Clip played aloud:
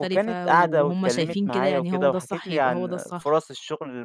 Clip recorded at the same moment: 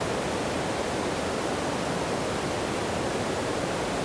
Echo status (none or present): none